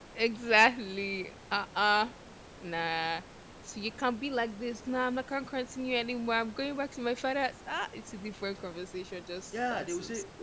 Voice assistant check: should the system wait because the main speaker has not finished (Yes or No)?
No